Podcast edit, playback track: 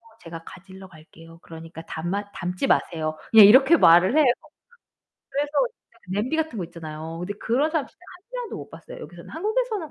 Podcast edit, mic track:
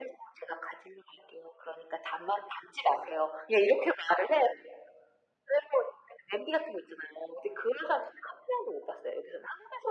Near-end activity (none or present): none